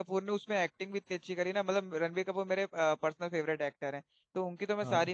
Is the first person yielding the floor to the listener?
No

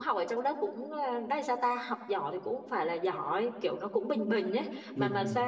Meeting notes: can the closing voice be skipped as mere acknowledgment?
No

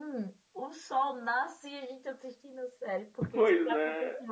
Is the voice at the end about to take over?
No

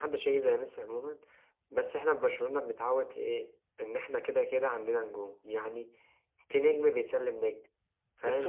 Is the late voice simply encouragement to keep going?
No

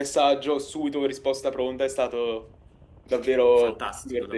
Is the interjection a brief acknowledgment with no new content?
No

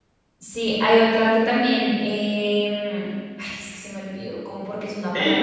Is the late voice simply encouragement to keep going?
No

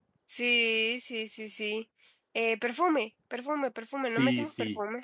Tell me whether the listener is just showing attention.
No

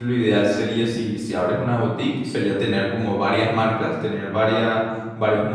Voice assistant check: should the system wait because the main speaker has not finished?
Yes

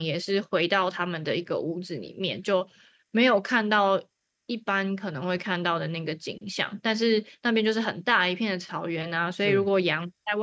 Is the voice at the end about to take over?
No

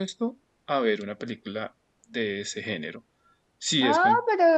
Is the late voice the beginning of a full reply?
Yes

